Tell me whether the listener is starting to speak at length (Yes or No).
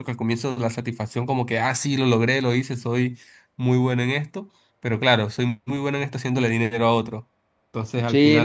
Yes